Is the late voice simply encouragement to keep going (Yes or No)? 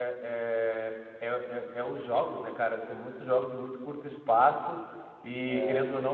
Yes